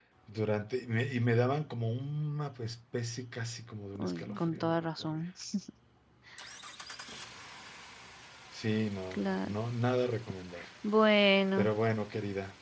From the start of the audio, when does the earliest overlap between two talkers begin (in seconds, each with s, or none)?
4.0 s